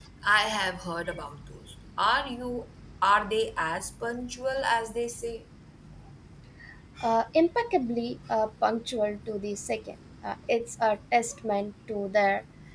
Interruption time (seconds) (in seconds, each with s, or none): none